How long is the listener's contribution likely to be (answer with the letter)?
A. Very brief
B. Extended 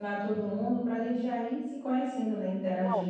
B